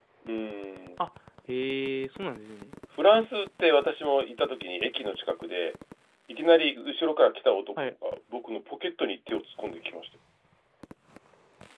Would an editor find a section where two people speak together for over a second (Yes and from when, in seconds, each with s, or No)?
No